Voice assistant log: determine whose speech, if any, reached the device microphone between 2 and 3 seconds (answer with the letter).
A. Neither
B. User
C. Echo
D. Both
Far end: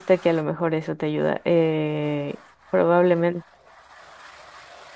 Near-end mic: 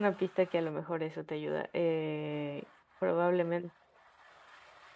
C